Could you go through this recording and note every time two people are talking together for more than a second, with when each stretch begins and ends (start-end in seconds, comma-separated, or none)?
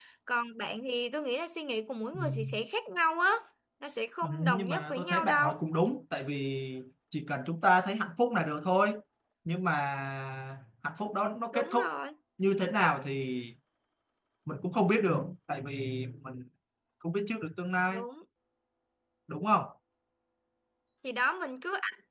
4.2-5.6